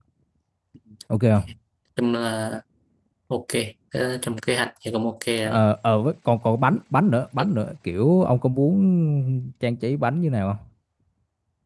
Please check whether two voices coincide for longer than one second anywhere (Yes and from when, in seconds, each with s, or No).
No